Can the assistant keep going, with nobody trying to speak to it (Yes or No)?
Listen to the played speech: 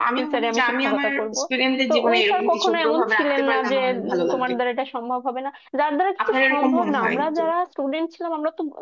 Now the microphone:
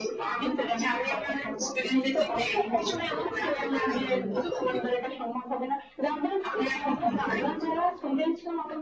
No